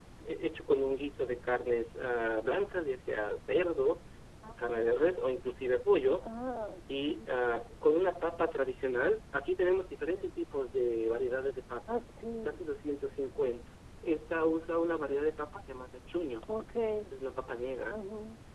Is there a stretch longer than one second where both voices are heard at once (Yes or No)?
No